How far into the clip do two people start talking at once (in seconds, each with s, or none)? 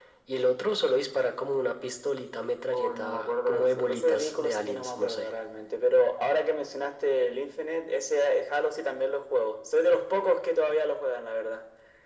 2.7 s